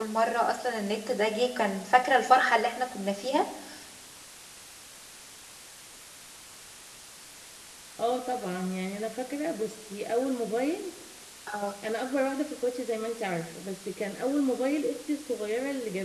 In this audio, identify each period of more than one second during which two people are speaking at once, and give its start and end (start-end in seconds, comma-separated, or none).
none